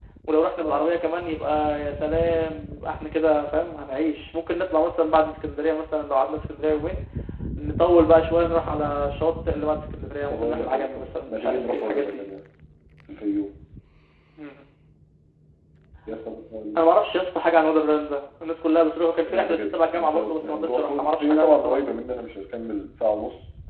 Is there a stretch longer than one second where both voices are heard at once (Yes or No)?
Yes